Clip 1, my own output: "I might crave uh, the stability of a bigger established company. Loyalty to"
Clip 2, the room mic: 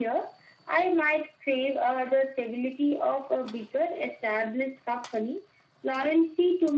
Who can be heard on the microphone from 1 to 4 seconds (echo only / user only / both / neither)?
echo only